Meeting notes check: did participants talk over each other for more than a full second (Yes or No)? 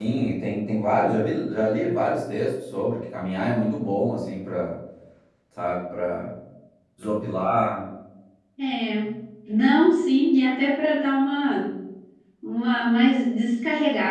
No